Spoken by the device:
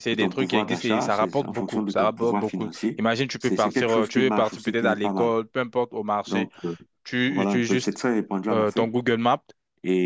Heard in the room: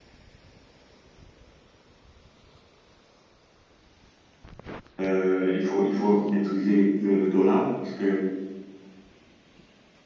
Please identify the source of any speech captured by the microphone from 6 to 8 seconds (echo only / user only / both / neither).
user only